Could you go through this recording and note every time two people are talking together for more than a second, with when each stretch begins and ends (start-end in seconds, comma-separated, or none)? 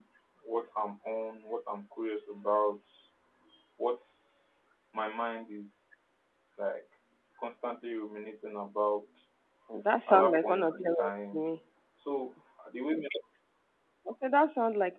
10.1-11.4